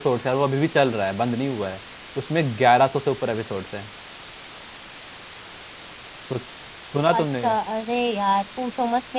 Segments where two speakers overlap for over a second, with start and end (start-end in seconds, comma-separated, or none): none